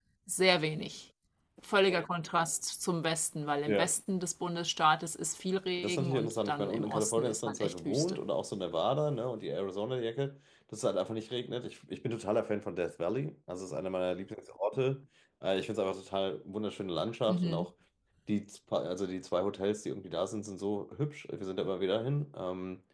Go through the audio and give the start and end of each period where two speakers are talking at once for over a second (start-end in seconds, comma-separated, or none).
5.8-8.2